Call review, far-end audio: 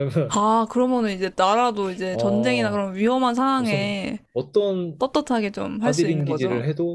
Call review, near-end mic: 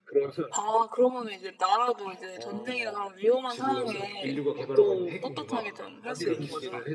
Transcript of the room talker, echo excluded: 지금 인류가 개발하고 있는 핵융합 이런 기술

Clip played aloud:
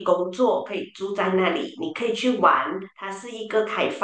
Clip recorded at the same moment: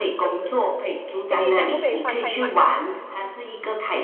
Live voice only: 行李箱不可以放太满，

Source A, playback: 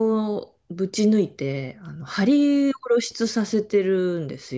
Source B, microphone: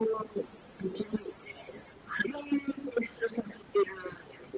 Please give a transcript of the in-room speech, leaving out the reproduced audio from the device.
none

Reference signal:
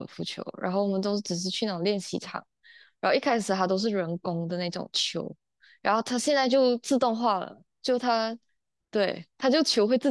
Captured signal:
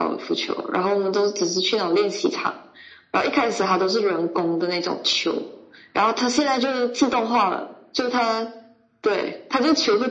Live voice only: none

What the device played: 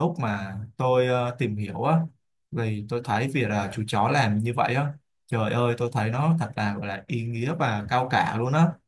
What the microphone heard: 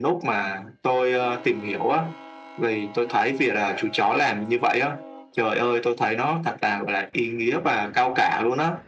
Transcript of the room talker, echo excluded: none

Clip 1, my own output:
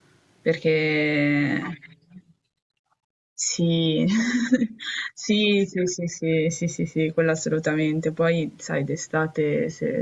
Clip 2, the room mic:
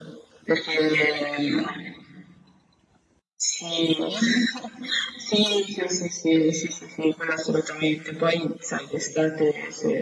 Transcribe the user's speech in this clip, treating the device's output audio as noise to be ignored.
none

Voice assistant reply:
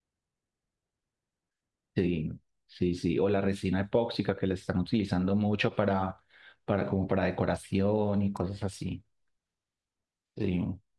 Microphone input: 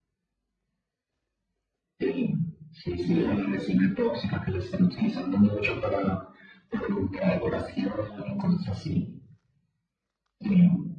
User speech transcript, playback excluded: Eh,

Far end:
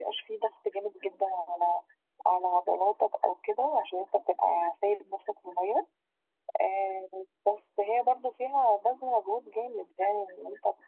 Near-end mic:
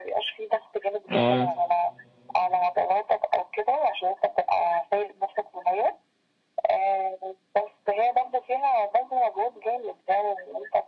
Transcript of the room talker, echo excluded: آه.

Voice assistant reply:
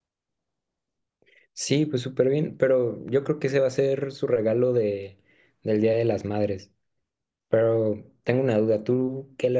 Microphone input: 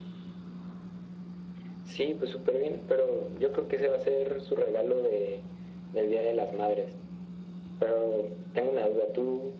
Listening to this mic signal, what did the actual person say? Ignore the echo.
none

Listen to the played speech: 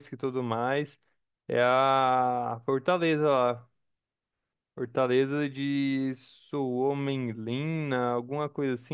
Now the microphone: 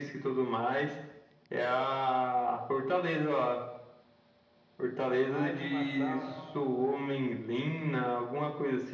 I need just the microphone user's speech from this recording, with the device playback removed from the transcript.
Mais uma sauna.

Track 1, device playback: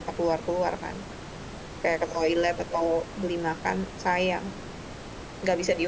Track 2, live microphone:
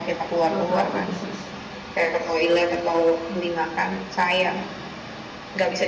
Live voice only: Kalau tahu August Rush.

